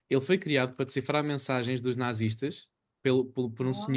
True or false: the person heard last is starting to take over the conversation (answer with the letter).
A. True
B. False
B